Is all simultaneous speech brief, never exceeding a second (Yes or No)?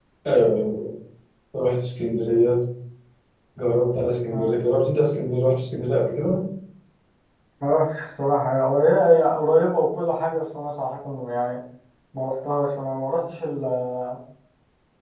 Yes